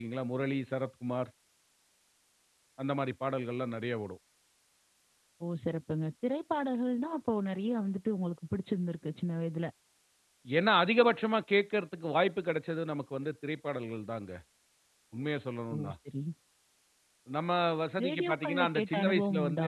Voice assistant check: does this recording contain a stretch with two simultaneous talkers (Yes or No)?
Yes